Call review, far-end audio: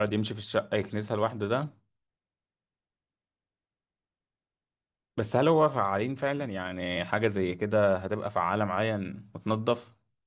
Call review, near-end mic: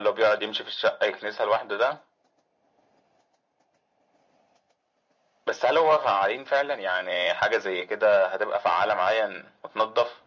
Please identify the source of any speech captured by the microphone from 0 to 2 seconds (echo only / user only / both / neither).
echo only